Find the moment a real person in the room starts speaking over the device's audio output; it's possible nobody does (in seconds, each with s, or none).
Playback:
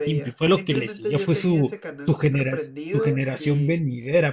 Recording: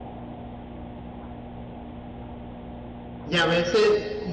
3.2 s